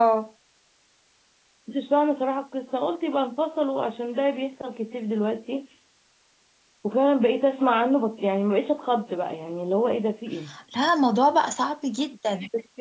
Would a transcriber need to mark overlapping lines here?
No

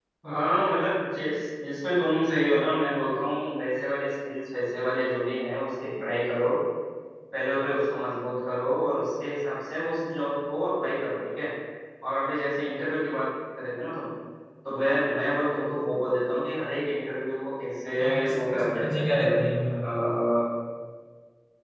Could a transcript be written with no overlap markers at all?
No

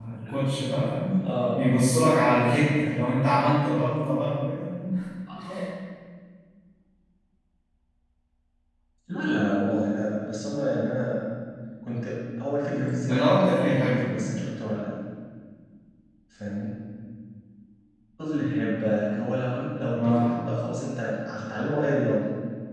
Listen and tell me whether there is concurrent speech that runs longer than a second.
Yes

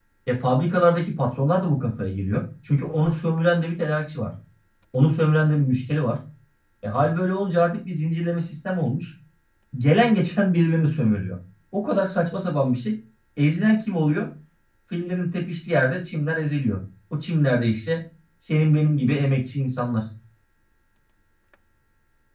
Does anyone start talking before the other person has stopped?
No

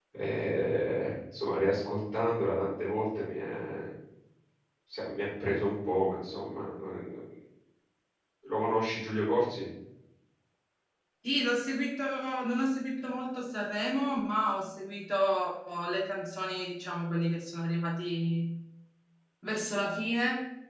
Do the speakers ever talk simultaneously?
No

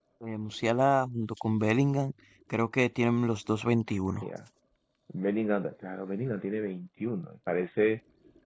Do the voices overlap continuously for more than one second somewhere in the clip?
No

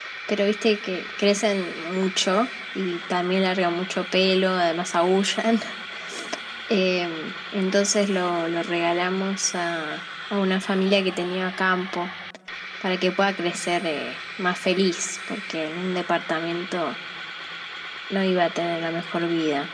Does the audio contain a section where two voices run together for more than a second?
No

